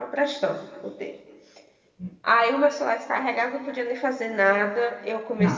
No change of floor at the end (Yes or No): Yes